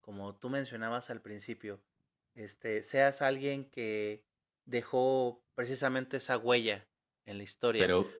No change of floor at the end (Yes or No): No